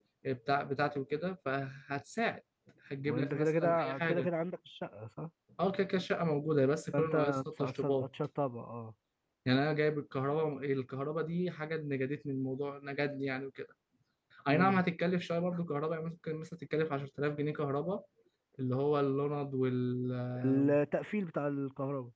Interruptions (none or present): present